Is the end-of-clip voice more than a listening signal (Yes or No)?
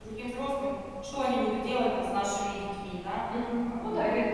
Yes